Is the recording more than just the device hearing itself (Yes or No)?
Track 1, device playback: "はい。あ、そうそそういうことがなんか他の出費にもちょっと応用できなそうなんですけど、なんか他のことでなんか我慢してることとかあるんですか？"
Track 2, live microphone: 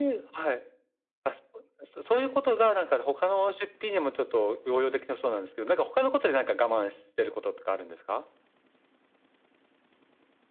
No